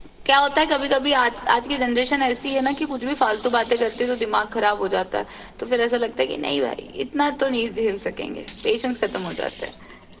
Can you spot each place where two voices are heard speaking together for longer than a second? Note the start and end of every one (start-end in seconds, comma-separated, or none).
none